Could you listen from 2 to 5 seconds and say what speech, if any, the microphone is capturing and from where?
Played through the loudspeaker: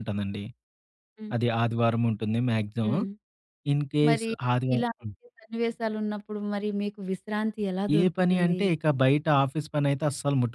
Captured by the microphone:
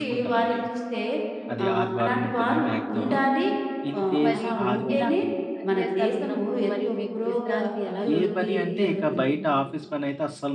both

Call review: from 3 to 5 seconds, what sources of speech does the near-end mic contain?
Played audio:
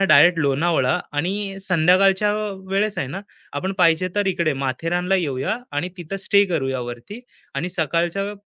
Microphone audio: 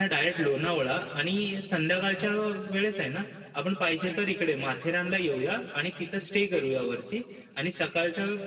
echo only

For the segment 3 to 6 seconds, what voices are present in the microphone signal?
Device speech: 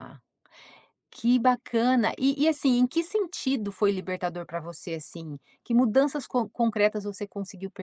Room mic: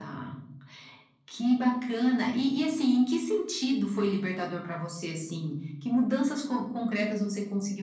echo only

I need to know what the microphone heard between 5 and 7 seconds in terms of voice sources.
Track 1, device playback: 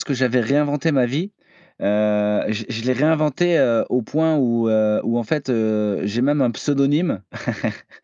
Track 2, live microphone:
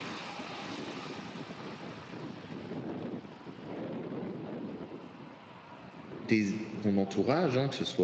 user only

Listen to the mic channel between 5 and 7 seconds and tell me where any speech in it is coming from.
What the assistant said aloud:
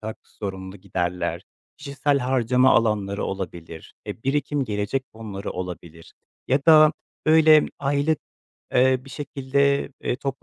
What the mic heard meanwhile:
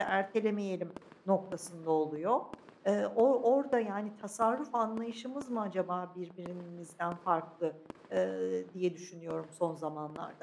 user only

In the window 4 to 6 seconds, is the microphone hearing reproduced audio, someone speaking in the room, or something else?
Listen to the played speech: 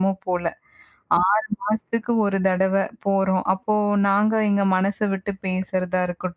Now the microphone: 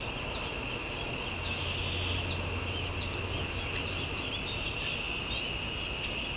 neither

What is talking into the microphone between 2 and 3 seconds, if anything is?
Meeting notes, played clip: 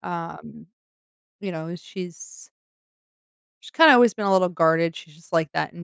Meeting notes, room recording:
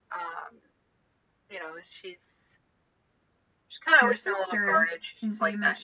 echo only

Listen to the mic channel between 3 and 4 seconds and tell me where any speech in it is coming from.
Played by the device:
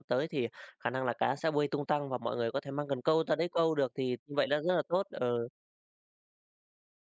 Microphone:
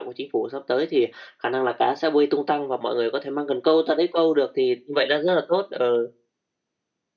echo only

